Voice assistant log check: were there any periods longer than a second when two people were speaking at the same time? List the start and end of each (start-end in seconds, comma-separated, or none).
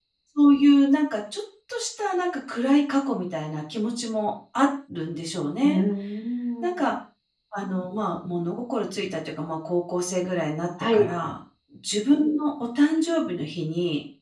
none